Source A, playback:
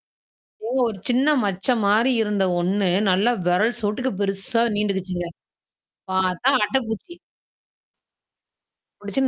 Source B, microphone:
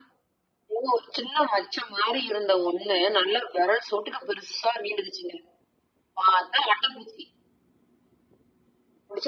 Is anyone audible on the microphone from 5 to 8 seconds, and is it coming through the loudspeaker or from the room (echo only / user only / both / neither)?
echo only